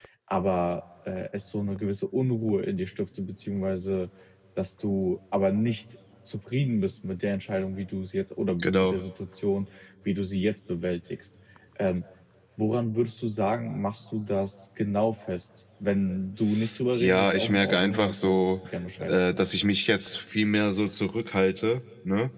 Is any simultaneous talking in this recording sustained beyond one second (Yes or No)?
Yes